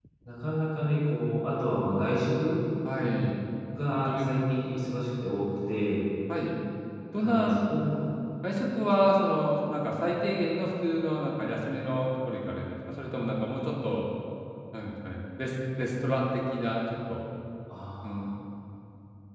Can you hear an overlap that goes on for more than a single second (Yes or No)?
No